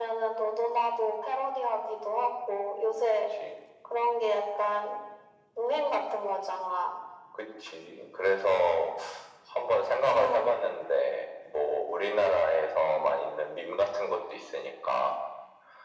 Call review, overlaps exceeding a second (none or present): none